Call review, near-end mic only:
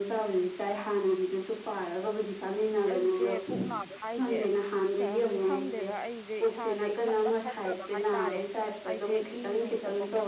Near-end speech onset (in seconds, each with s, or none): 2.9 s